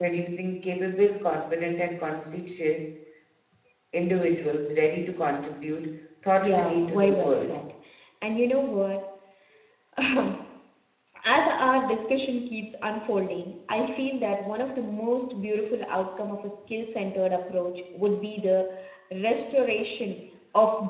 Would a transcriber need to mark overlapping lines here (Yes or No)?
Yes